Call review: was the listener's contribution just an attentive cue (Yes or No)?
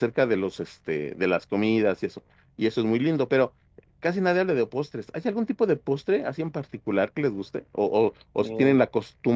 Yes